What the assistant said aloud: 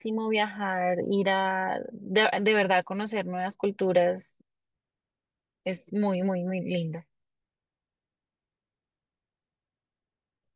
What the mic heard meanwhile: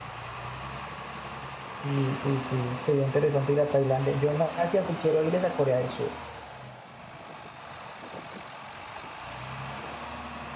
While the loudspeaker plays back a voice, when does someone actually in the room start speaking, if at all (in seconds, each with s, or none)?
1.7 s